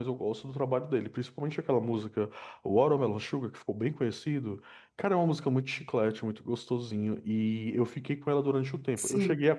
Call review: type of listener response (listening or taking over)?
listening